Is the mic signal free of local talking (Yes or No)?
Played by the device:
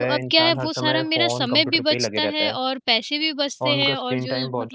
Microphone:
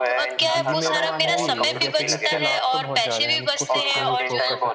No